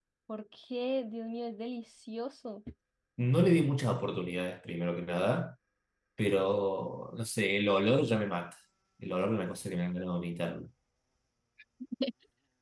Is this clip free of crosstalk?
Yes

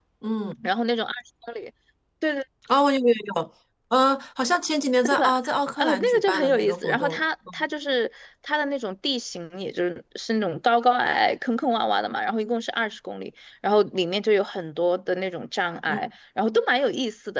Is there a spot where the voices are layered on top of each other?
Yes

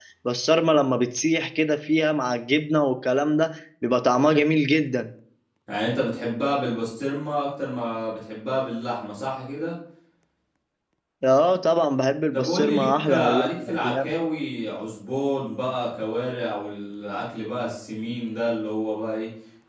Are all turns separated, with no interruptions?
No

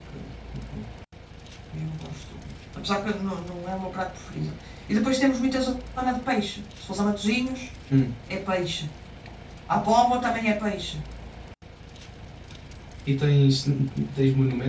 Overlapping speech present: No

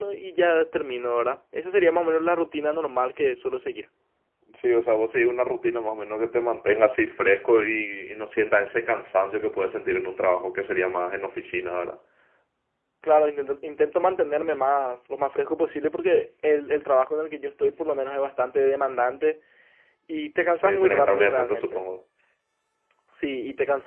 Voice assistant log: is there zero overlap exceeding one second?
No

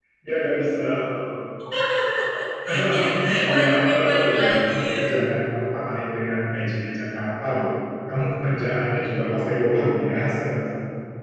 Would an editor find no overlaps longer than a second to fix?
No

